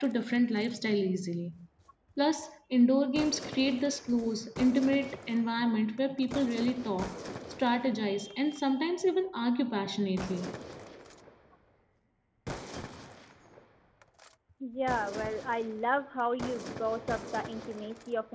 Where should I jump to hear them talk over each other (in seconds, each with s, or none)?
none